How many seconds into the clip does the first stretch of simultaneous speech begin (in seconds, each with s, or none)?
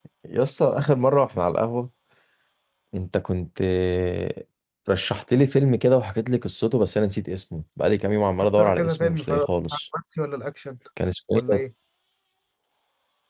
8.6 s